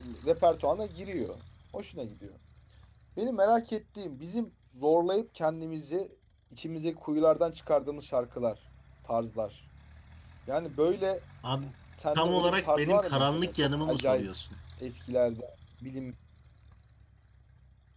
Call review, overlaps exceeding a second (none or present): present